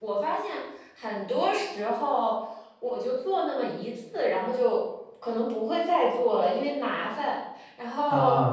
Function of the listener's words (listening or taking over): listening